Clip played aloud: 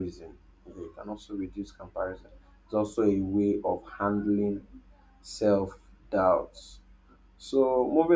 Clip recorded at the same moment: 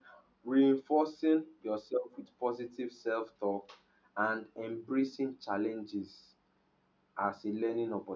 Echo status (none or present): none